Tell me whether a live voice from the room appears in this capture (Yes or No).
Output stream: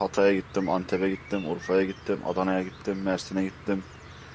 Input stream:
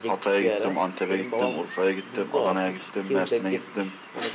Yes